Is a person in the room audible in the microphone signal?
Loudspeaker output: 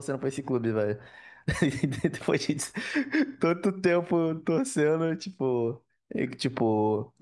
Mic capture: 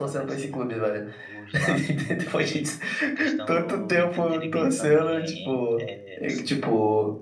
Yes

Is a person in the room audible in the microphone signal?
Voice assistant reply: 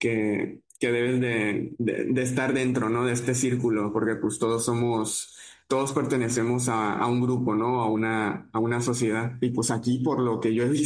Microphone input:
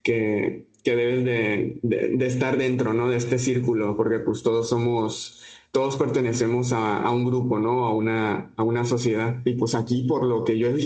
No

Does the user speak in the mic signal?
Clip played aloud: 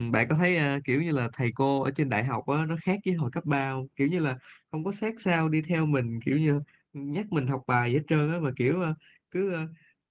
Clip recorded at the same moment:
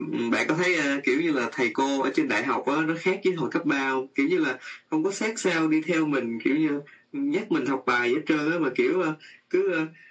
No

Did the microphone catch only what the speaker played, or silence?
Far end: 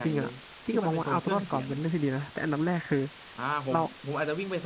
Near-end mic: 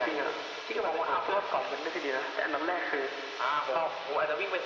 Yes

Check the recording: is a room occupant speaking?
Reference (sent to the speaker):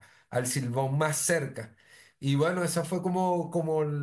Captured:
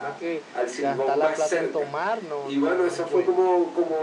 Yes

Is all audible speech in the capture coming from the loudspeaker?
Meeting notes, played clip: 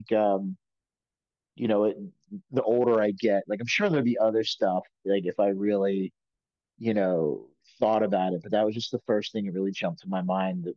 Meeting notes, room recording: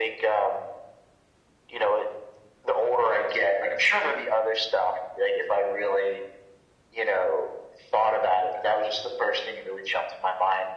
Yes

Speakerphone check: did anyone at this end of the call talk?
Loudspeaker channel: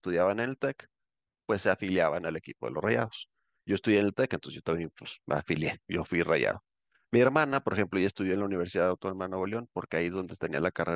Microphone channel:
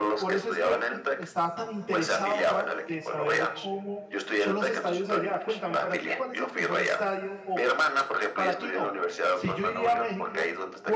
Yes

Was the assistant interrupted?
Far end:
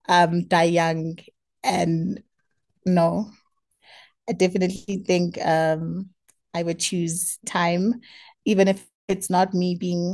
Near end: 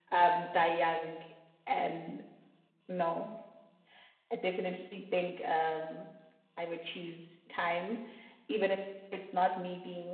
No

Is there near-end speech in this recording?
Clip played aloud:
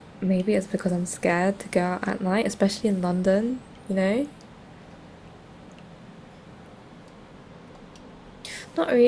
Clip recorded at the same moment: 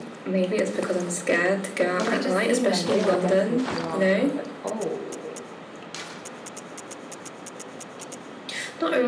Yes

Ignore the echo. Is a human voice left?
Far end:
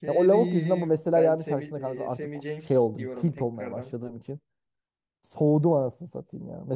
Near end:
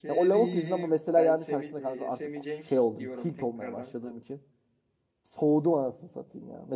No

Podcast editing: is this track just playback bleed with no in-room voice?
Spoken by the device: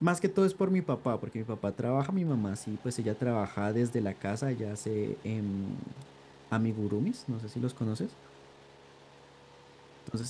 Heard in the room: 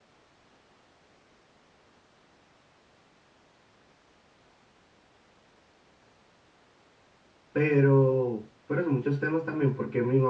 No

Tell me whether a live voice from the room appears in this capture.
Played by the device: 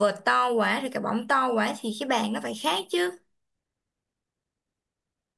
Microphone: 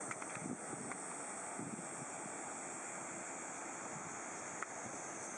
No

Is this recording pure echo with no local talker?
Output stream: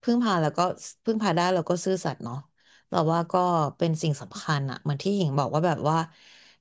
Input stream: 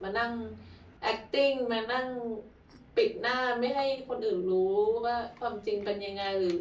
No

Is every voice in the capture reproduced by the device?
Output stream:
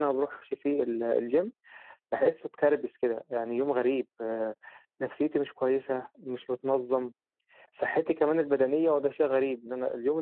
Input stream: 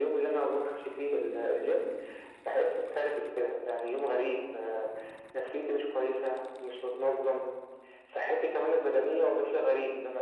Yes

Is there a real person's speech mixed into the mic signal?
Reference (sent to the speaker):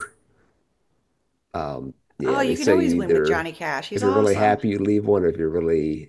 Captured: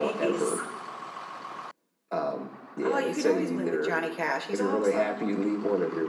No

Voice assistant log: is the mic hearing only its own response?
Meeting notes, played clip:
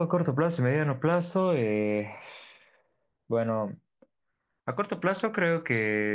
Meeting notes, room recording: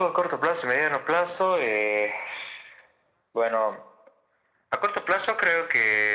Yes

